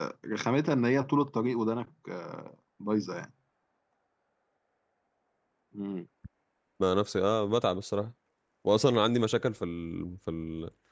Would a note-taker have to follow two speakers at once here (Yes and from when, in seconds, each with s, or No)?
No